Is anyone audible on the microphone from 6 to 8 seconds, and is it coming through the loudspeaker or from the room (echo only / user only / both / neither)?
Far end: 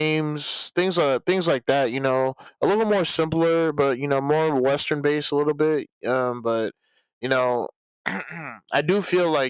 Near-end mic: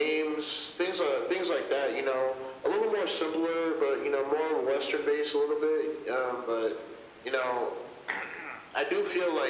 echo only